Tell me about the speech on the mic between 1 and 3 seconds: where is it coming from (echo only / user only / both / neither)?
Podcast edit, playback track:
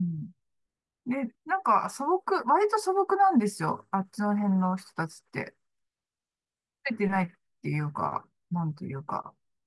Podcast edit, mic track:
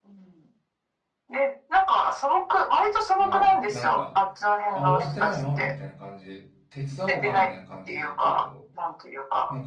echo only